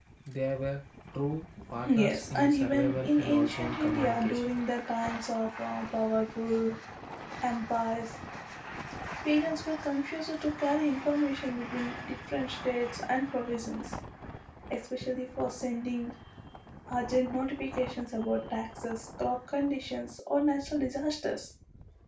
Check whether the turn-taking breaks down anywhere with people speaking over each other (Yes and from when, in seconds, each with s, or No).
Yes, from 1.8 s